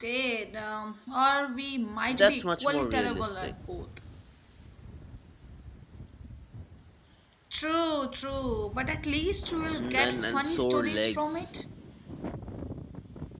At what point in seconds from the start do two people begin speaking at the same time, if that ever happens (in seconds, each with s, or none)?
2.1 s